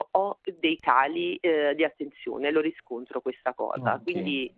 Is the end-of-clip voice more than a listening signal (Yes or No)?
No